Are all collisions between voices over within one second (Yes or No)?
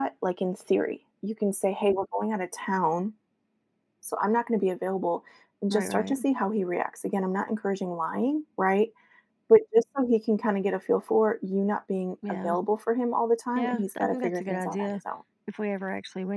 No